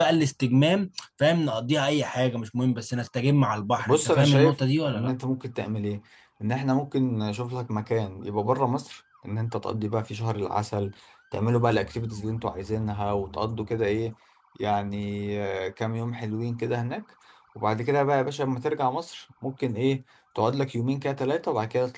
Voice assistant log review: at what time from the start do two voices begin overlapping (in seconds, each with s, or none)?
3.8 s